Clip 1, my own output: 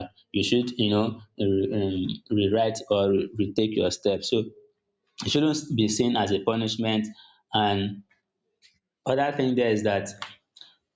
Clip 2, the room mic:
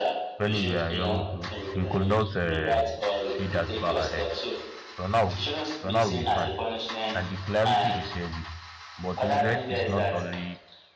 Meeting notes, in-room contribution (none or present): present